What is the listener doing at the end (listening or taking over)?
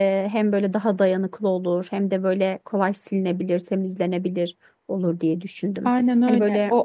taking over